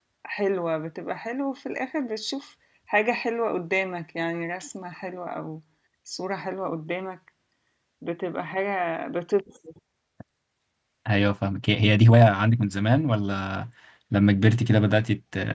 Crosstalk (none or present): none